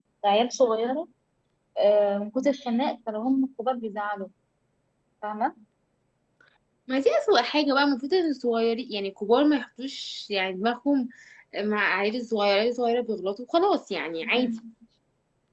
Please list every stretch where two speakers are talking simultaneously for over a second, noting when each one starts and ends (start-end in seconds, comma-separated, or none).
none